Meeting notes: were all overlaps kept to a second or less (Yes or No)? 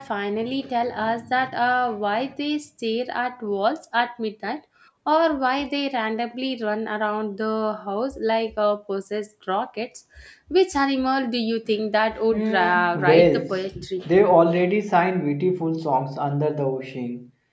No